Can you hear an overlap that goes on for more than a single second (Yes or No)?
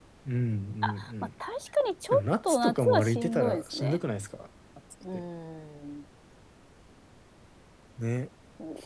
Yes